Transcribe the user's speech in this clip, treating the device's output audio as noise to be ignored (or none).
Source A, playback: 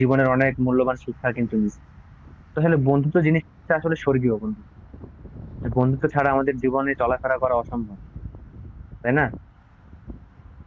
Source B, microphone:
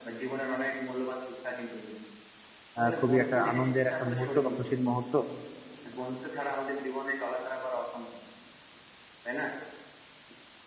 আহ, খুবই একটা আনন্দের একটা মুহূর্ত বা খুশির মুহূর্ত